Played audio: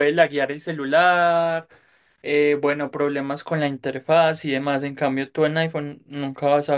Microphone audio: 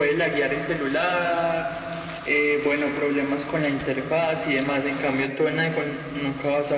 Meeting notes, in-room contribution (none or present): none